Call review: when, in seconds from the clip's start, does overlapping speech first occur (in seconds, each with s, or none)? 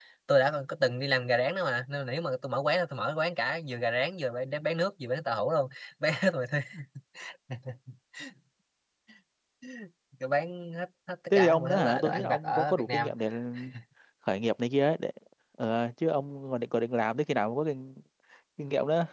11.3 s